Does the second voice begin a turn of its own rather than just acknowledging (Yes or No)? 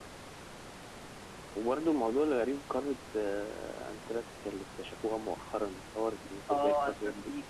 Yes